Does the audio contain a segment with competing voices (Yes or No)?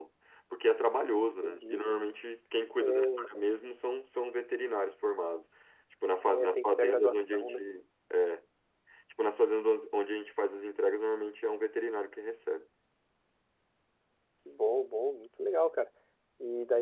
Yes